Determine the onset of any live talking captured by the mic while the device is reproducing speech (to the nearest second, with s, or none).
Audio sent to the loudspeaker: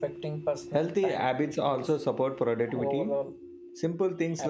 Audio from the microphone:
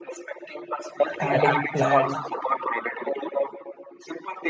1 s